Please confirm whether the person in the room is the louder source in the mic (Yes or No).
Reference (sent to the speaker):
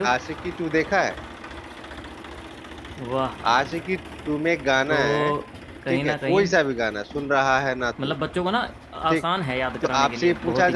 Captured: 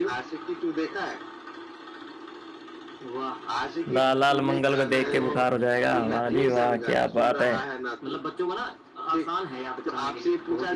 Yes